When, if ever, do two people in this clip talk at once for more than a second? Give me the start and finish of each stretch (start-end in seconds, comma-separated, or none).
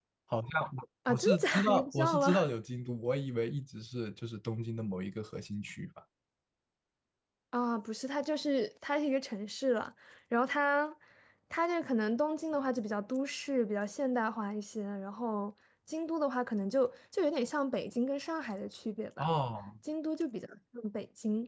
1.1-2.4